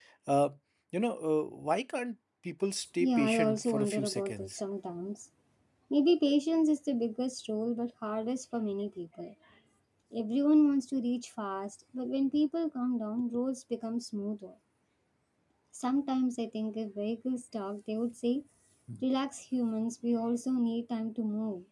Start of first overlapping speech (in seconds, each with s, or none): 3.0 s